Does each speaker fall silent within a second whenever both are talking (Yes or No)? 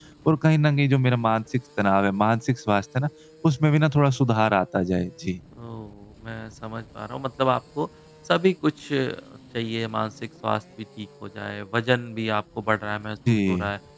Yes